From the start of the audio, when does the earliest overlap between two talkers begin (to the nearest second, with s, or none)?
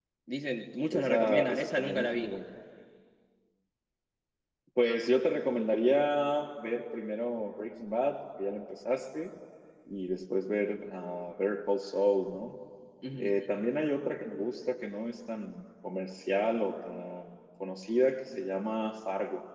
1 s